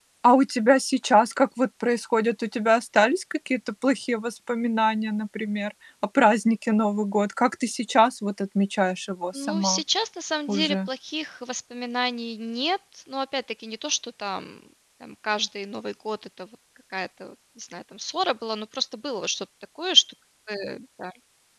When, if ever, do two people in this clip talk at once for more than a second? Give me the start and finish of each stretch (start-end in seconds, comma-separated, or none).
none